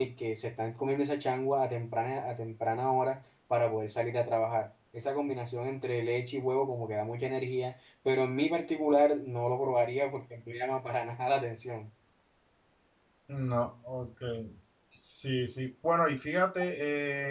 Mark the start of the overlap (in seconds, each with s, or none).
none